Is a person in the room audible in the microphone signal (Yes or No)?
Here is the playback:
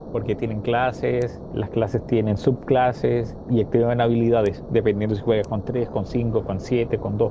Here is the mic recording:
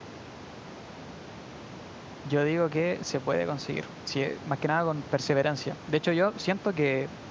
Yes